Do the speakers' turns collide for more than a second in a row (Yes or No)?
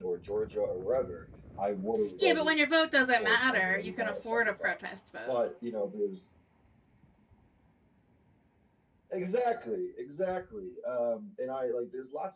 Yes